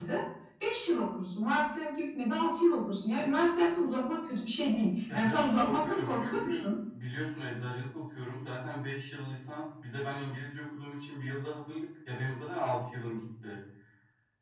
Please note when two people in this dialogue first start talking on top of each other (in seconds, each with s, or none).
5.1 s